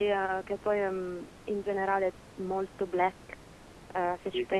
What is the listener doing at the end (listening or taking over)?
listening